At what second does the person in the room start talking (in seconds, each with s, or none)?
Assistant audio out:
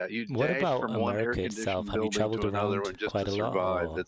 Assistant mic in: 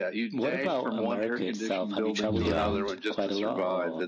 2.3 s